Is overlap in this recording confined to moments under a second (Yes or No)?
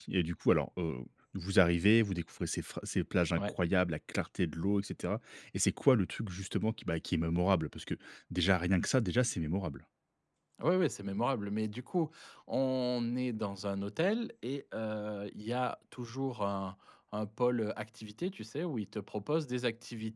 Yes